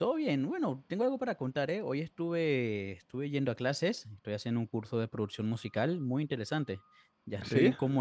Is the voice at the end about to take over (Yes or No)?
No